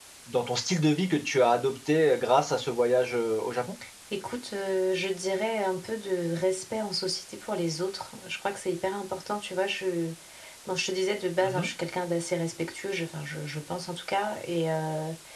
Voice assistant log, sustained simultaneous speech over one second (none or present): none